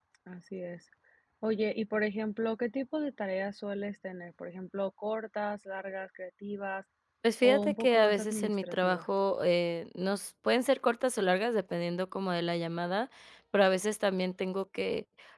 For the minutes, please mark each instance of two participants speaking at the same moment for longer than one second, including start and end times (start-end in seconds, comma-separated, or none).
7.4-9.1